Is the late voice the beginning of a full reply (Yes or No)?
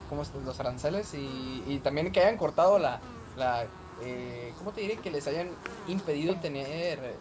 No